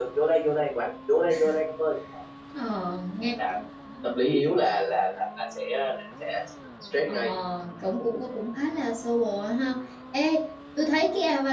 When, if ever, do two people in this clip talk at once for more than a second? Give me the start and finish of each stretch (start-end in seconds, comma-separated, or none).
none